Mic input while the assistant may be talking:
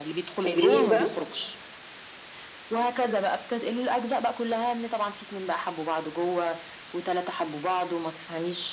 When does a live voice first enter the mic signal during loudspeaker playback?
0.4 s

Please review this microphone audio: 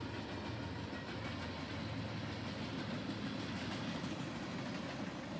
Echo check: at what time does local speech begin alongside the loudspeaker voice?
none

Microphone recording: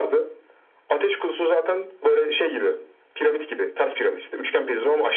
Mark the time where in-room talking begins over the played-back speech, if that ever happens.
none

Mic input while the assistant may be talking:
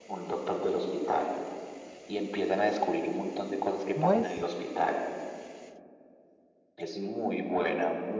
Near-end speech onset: 3.9 s

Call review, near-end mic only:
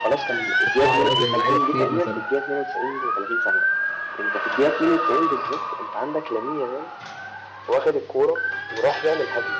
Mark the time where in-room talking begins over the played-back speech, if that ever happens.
0.6 s

